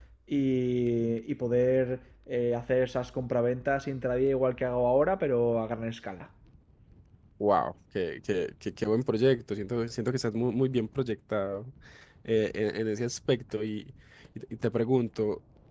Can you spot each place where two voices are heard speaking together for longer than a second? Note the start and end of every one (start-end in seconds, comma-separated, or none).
none